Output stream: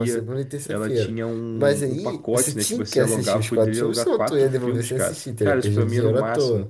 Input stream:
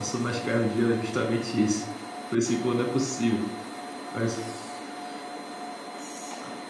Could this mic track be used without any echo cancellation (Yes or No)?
Yes